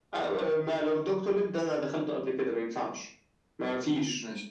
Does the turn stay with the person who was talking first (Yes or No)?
Yes